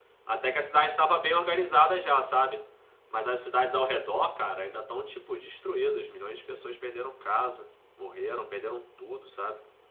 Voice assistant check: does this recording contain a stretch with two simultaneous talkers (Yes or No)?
No